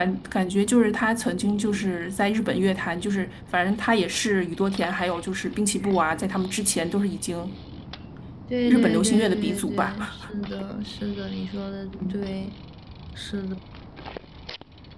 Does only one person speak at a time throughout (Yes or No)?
No